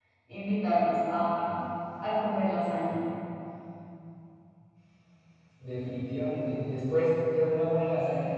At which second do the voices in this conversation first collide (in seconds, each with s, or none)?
none